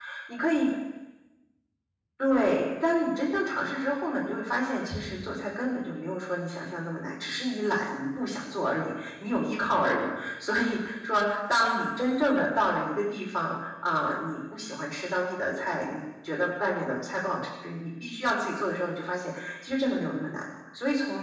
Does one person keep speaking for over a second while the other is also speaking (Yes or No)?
No